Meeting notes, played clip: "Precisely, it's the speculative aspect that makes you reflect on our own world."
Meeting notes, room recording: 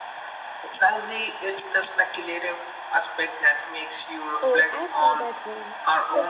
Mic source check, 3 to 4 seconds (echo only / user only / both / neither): echo only